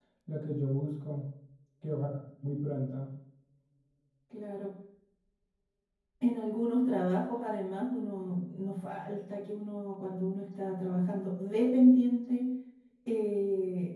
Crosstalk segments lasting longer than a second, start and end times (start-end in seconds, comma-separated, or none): none